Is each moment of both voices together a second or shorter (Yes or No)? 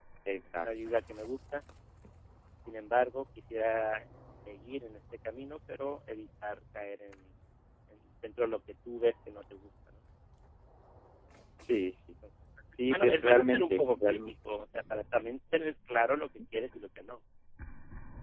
No